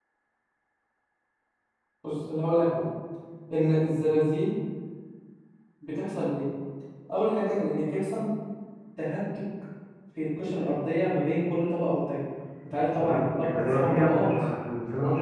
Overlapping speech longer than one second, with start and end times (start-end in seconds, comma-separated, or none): 13.0-14.3